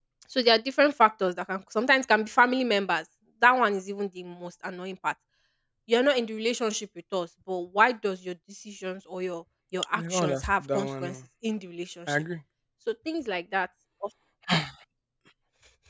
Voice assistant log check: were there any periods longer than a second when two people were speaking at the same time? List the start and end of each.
9.9-11.2

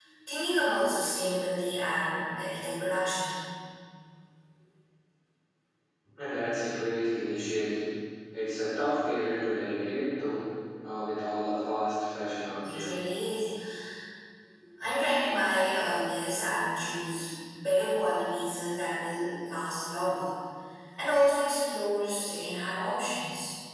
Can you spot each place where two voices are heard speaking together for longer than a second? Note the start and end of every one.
none

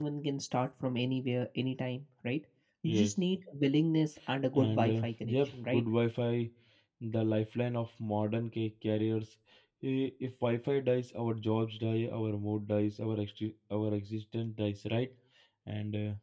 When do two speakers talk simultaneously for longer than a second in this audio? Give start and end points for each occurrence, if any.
4.5-5.8

